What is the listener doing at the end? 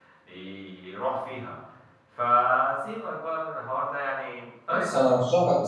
taking over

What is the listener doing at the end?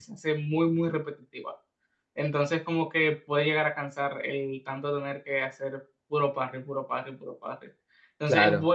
listening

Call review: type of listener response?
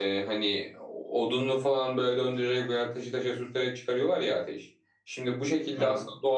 listening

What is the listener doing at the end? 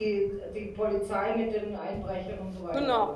taking over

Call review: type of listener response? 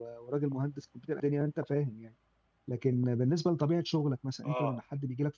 listening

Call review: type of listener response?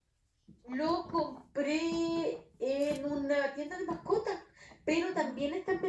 listening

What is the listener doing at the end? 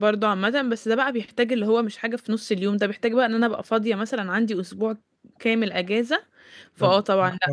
taking over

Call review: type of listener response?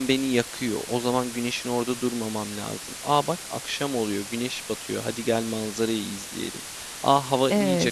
listening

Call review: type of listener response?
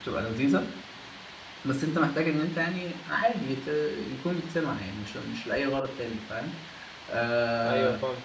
taking over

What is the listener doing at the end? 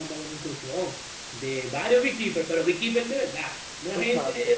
taking over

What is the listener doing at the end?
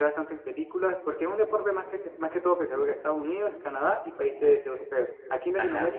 listening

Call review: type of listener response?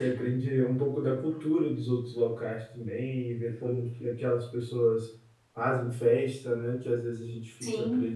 listening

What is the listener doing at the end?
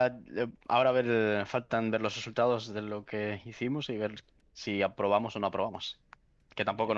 listening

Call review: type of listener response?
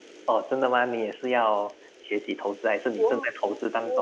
taking over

